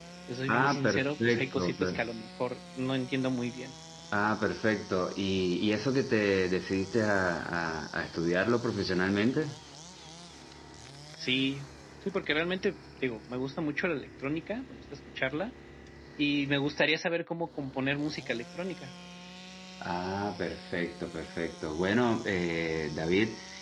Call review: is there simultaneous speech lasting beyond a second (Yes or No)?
Yes